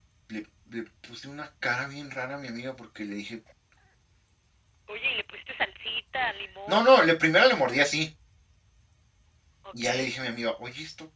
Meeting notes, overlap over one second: none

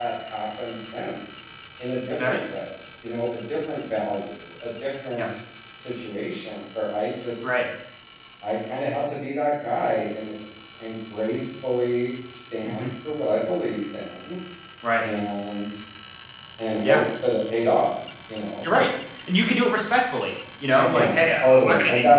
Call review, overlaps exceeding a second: present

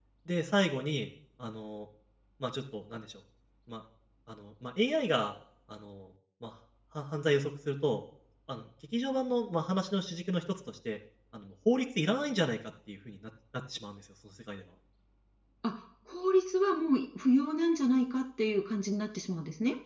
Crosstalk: none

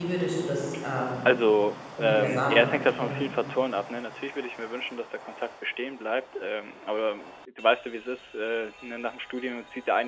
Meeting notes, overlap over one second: present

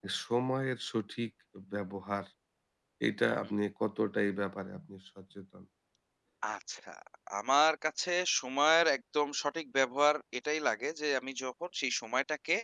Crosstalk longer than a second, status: none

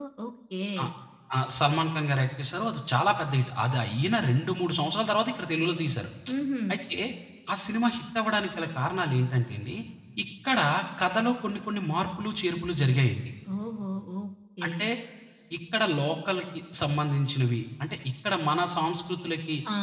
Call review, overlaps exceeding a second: none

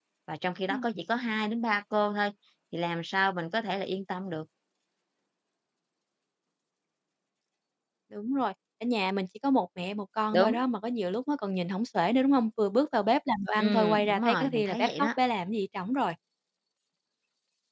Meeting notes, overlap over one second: present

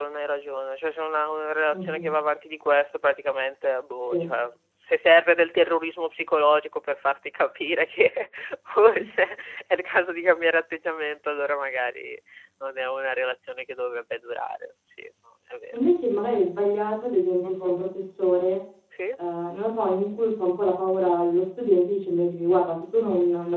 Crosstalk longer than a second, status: none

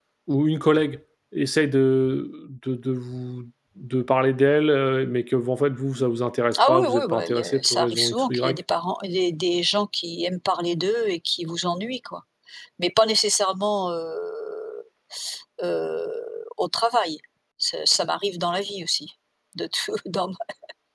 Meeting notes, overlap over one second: present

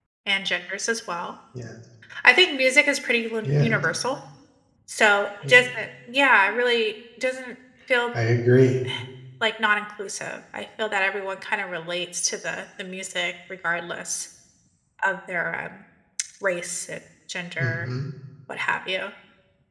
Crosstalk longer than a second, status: none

